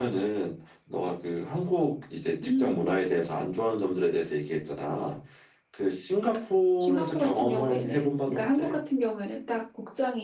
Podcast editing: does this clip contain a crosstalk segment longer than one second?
Yes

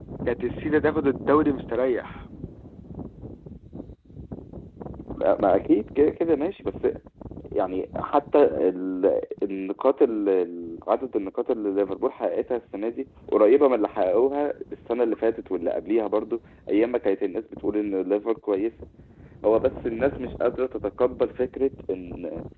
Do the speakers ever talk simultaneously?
No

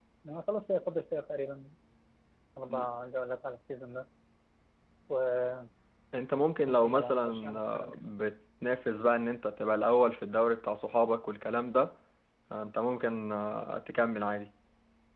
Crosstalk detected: Yes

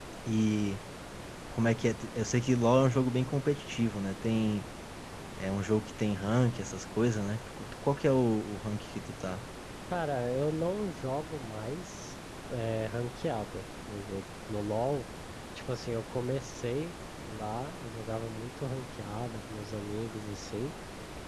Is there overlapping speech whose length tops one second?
No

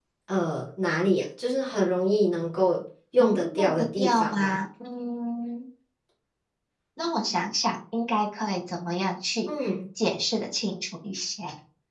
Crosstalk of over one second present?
Yes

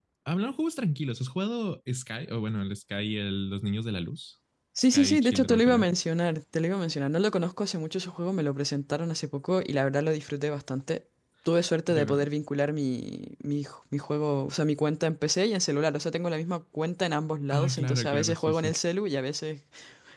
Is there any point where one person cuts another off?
Yes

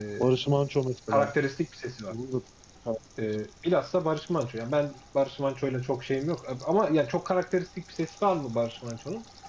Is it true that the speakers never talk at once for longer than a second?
Yes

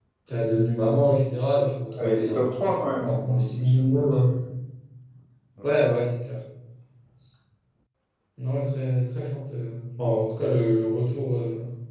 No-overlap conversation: No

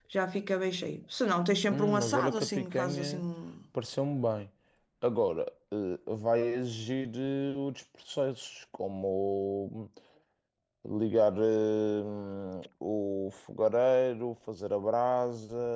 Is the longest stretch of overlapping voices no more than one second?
No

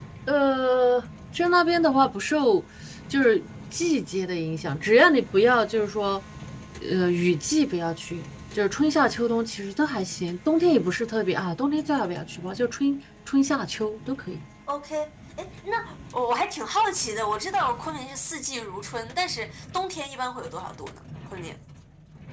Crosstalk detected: No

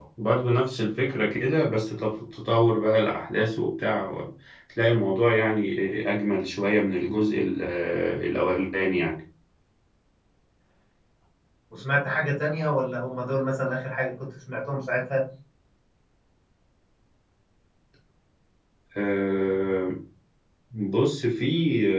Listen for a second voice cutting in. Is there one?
No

